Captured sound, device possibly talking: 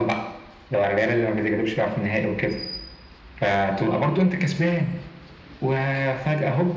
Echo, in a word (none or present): present